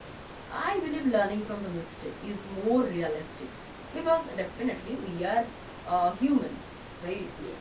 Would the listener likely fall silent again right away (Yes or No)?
Yes